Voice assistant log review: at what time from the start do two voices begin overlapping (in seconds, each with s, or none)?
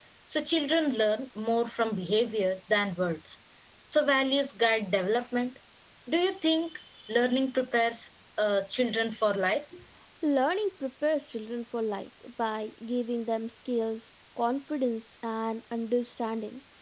none